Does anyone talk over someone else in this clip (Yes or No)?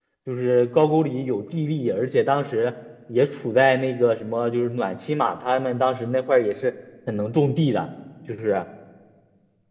No